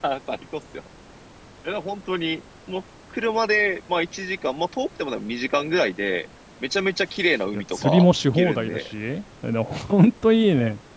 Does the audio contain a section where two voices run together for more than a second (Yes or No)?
Yes